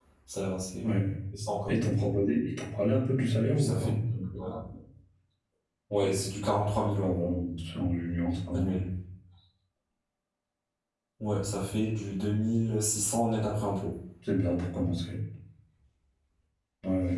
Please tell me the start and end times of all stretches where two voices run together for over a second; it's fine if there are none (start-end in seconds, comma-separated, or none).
none